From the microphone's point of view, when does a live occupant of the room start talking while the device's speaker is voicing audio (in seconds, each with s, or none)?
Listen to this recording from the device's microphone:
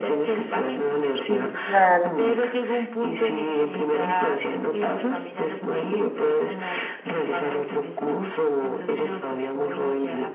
1.3 s